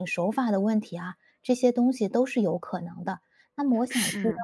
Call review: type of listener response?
listening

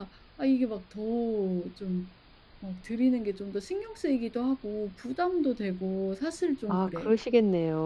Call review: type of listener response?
taking over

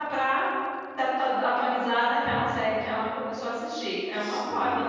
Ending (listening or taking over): taking over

